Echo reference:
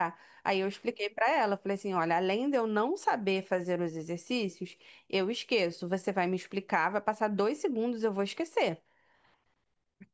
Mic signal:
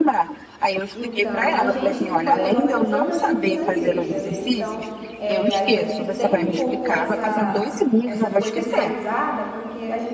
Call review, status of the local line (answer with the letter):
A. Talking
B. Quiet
A